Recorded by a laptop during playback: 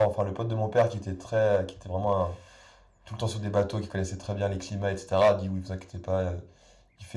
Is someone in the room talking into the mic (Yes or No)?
Yes